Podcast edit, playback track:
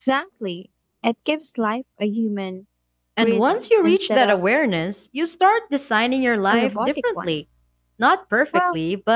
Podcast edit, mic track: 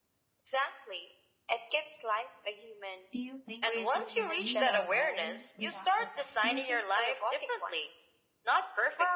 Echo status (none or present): present